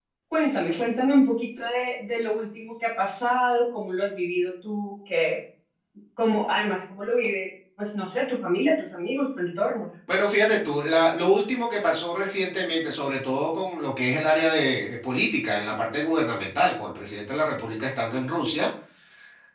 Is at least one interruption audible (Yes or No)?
No